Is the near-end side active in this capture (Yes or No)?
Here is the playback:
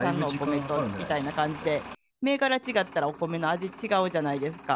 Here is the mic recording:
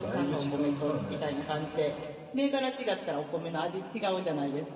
No